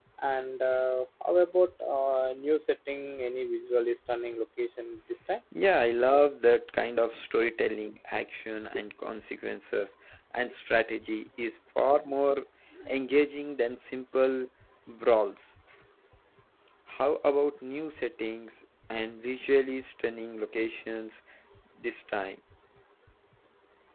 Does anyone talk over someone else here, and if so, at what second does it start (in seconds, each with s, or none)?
none